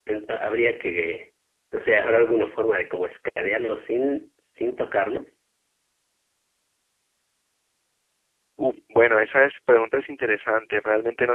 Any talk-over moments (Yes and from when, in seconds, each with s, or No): No